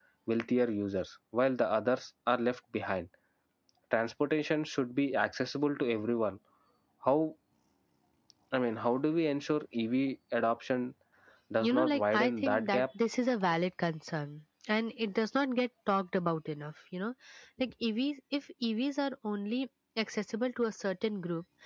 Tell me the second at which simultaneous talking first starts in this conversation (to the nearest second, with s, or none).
12 s